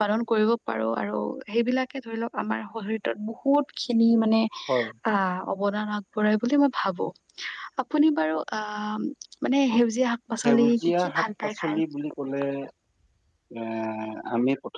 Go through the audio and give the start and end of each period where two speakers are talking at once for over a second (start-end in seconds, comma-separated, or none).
10.4-11.8